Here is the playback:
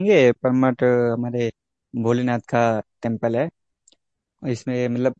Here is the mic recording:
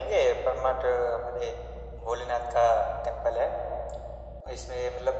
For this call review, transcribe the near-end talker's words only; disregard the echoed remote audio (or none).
none